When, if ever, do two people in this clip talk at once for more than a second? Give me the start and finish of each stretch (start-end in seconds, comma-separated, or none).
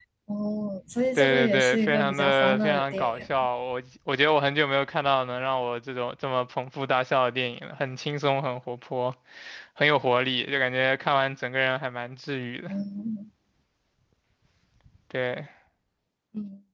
1.2-3.2